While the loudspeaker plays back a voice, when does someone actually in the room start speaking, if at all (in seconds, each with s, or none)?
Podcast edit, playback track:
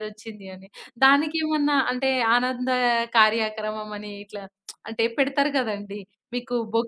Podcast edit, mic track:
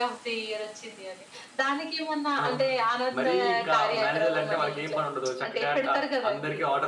2.4 s